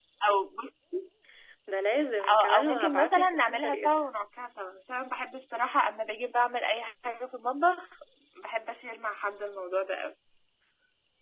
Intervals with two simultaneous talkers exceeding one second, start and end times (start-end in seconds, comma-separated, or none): 2.3-4.0